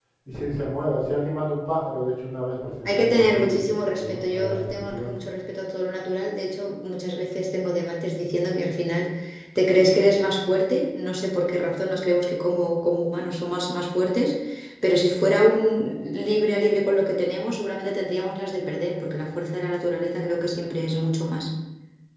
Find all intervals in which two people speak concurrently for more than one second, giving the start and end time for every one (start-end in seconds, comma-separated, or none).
2.9-5.1